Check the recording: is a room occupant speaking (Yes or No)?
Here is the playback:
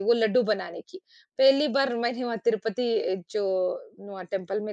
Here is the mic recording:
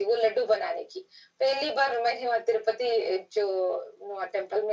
No